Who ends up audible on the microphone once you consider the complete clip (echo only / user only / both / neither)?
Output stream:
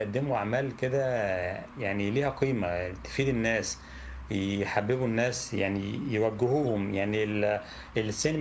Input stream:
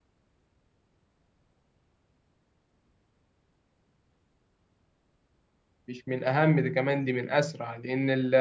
user only